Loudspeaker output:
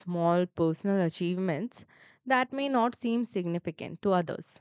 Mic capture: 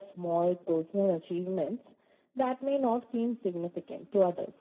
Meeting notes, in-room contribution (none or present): none